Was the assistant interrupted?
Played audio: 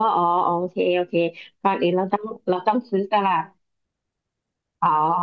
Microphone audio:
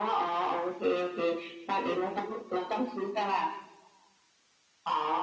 No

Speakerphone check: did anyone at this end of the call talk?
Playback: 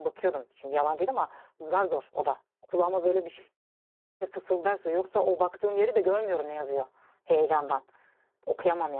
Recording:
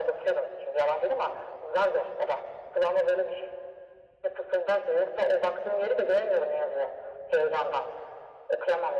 No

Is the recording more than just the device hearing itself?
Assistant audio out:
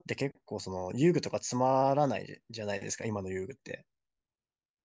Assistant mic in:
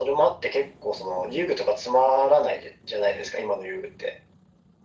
No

